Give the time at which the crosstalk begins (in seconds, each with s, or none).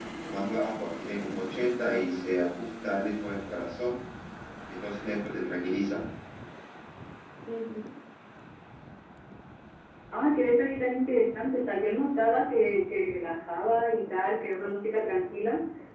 none